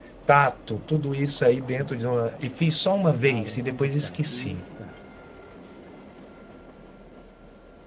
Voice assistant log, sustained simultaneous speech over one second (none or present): present